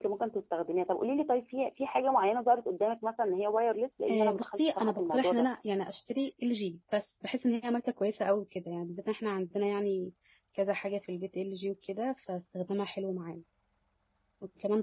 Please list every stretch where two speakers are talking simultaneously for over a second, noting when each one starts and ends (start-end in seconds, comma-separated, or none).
4.1-5.5